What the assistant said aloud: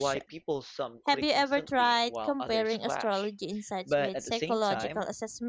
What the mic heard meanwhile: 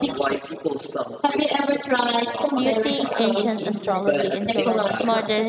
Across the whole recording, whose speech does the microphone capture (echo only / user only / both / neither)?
both